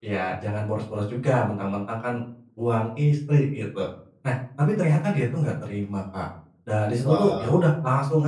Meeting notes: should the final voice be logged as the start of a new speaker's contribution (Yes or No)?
No